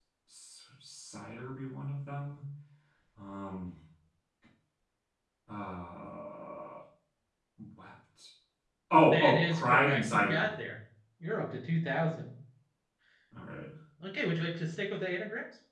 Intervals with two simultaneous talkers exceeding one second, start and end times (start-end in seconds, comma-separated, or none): 9.1-10.5